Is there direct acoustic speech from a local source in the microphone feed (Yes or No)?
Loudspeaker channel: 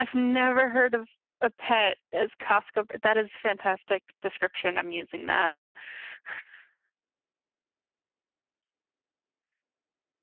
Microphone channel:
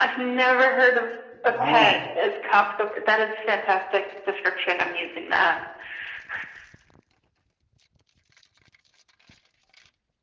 Yes